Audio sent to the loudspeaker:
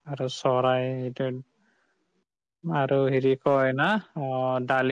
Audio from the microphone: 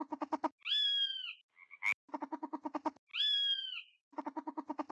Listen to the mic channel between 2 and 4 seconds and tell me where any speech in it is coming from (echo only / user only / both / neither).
neither